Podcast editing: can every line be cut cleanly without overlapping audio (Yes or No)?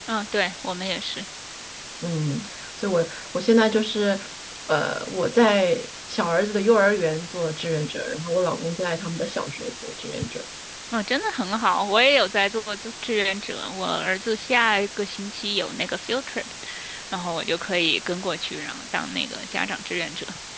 Yes